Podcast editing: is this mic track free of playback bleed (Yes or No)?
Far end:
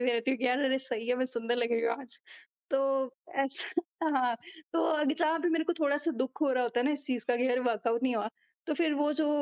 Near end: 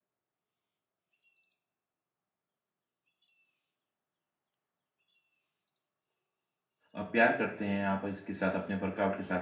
Yes